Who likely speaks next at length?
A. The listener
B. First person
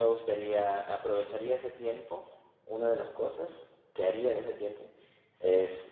B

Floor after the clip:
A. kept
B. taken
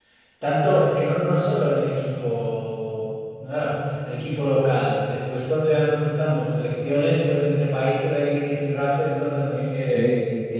B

